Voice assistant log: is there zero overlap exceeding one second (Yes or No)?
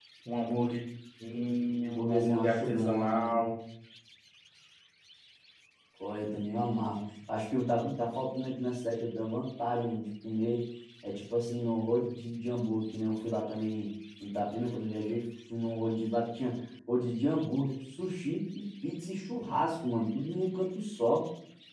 No